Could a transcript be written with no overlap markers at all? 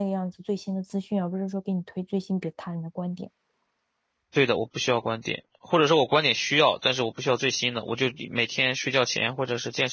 Yes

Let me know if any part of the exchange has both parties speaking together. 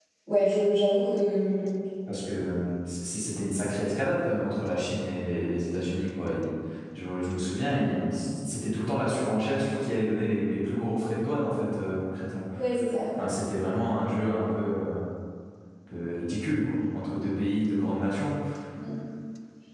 No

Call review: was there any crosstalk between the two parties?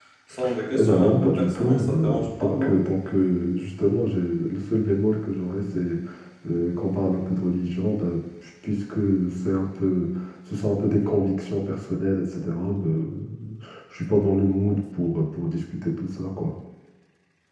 Yes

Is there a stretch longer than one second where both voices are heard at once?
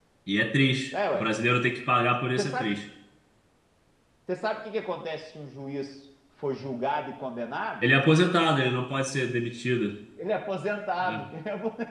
No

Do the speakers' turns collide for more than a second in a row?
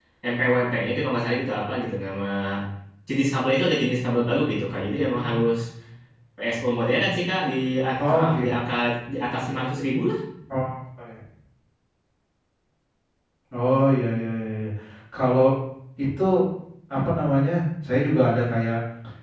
No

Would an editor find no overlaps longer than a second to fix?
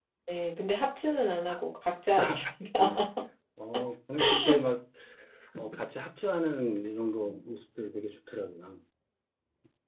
Yes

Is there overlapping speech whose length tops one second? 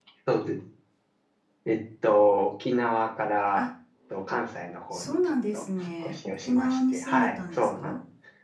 Yes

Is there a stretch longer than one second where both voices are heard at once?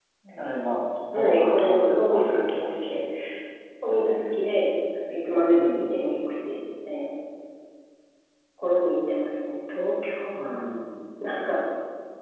Yes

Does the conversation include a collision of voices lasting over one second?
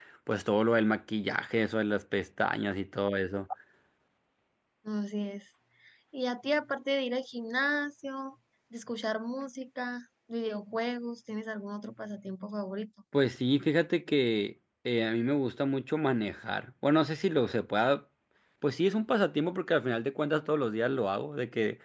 No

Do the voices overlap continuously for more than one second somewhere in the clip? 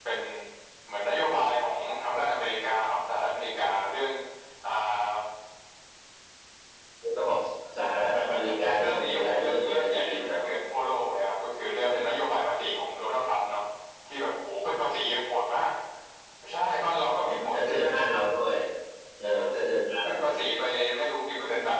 Yes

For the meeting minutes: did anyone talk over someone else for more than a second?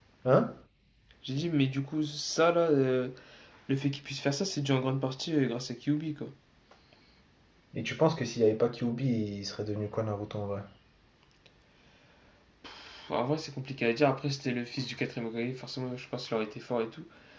No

